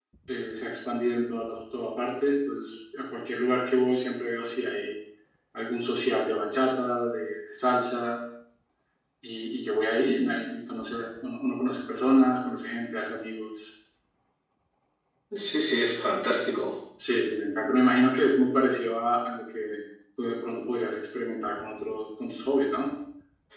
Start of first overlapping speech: none

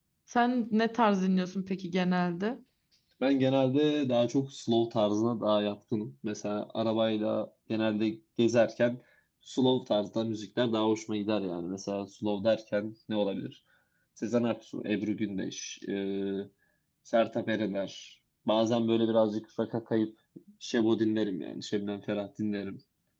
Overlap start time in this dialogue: none

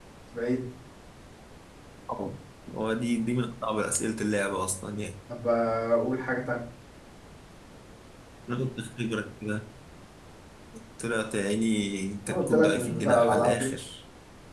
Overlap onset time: 12.2 s

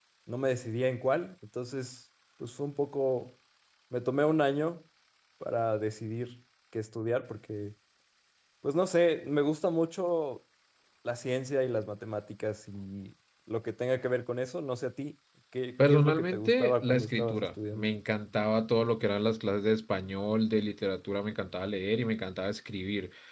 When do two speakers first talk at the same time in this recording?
15.8 s

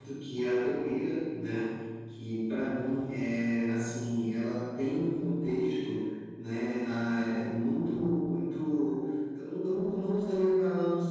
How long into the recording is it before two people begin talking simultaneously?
none

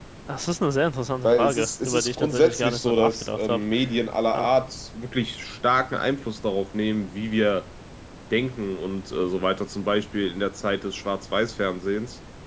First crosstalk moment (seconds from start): 1.2 s

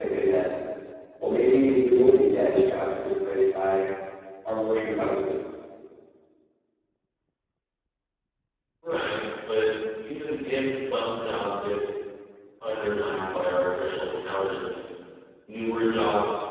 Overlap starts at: none

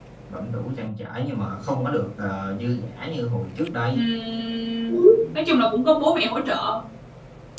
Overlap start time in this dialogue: none

